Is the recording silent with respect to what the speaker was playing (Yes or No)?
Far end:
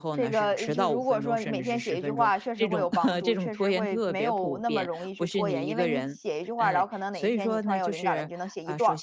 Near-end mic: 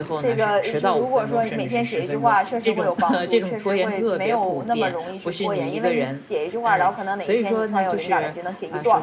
No